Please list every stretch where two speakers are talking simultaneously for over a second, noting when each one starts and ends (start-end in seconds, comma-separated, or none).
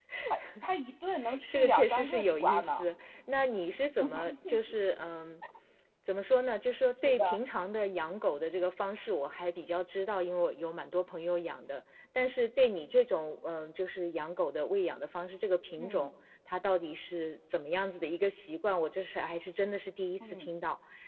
1.5-2.8